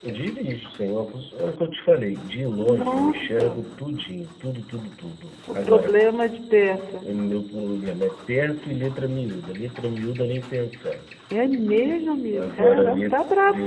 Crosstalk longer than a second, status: present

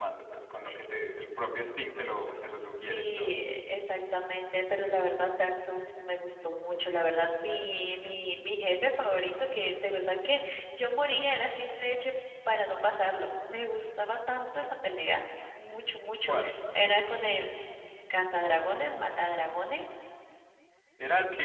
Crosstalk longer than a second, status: none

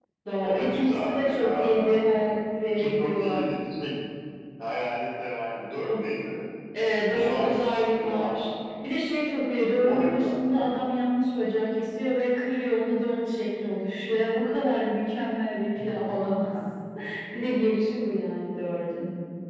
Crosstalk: present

